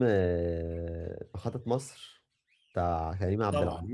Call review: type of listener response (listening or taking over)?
taking over